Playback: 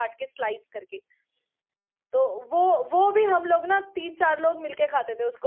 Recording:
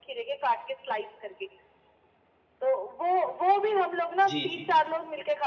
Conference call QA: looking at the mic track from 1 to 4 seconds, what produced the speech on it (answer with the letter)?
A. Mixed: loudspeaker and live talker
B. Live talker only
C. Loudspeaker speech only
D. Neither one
C